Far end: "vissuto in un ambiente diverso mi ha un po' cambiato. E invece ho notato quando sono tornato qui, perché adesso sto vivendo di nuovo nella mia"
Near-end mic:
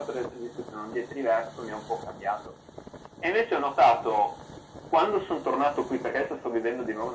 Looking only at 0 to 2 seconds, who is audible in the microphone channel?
echo only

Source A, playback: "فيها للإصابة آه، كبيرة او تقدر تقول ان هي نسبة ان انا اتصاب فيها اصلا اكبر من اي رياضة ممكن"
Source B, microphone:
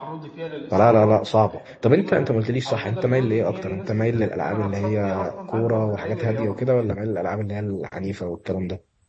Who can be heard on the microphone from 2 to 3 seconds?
both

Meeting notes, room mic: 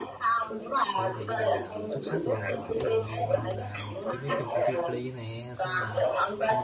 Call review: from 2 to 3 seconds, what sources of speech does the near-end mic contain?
both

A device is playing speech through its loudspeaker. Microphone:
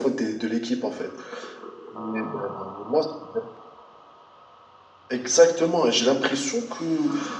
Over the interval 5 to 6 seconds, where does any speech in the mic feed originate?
echo only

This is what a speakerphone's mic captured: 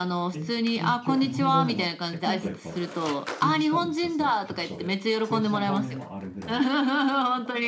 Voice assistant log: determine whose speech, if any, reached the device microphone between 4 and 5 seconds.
both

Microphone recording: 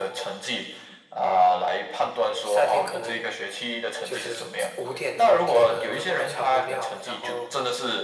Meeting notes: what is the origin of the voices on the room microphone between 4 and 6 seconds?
echo only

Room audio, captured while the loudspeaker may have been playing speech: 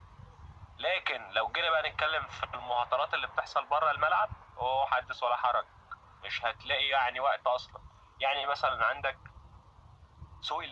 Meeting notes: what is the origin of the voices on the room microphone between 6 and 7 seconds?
echo only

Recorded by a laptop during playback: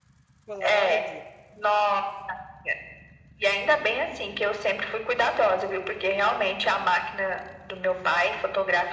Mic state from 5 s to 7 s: echo only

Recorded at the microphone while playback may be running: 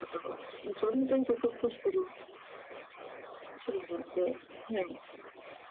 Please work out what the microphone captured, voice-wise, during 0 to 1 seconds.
echo only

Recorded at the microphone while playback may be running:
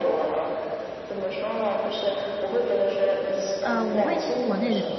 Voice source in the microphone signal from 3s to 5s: both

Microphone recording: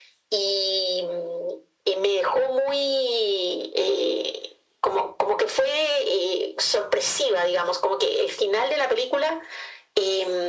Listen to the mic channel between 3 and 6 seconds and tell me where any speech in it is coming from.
echo only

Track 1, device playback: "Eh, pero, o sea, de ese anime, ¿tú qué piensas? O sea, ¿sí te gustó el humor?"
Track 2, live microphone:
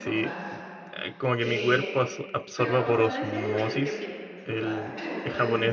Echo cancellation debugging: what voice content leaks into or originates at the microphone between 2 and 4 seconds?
both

